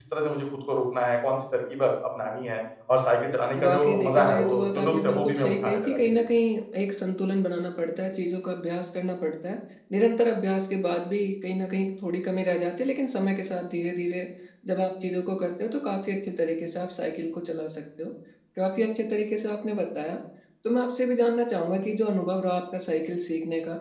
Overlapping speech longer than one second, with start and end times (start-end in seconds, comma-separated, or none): 3.6-6.2